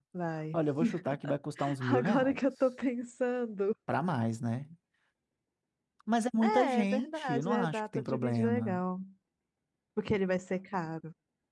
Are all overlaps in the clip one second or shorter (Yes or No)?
No